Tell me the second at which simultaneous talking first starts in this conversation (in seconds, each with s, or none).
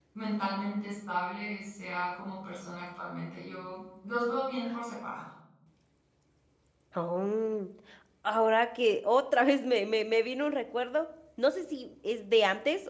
none